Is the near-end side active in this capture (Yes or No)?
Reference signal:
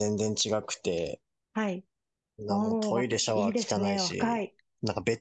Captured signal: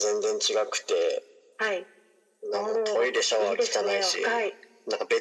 No